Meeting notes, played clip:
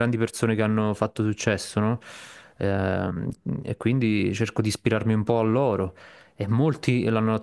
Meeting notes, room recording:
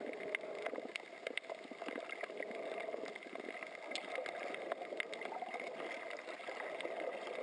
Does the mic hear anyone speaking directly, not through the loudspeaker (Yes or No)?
No